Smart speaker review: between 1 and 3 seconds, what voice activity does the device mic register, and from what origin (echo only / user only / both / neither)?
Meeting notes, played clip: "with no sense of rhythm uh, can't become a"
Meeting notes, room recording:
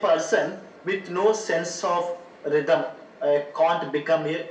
echo only